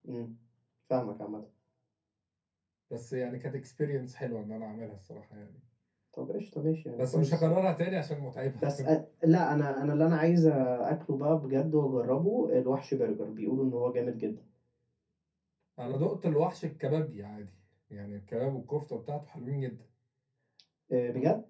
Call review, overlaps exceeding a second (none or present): none